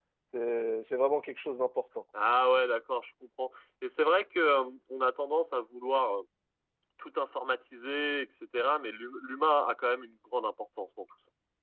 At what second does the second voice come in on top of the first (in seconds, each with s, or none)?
none